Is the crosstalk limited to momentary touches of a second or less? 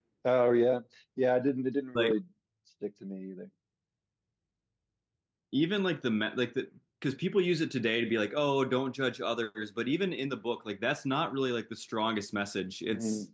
Yes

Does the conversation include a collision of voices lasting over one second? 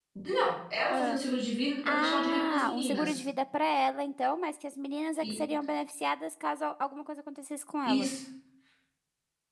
Yes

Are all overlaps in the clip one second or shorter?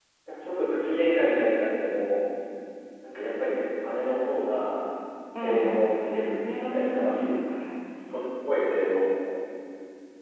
No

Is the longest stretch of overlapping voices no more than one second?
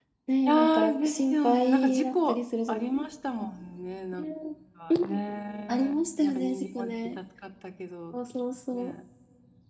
No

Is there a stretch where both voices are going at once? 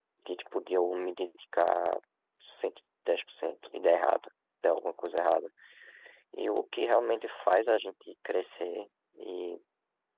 No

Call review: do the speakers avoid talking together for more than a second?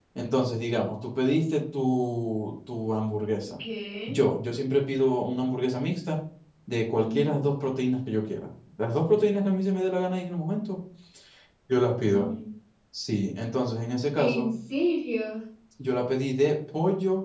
Yes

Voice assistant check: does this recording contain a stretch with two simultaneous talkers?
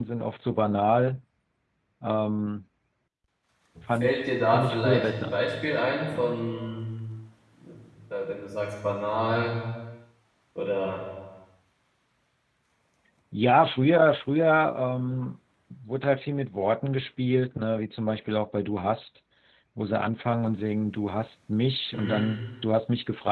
Yes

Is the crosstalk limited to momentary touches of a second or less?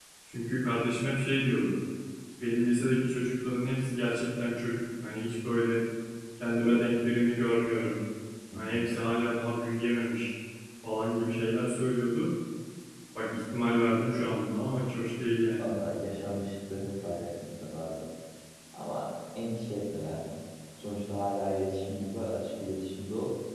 Yes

